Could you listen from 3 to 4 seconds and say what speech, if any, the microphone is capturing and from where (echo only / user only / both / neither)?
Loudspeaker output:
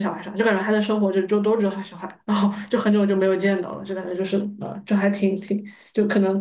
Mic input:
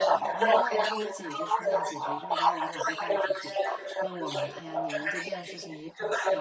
both